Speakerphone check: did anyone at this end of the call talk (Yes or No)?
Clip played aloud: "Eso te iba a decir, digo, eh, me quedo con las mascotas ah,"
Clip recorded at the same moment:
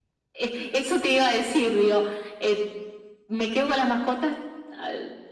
No